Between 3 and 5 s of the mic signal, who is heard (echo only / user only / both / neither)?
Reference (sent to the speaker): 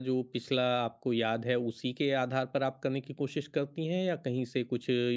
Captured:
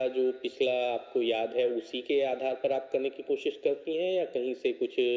echo only